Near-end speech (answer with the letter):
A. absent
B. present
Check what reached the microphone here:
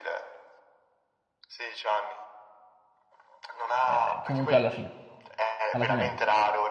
B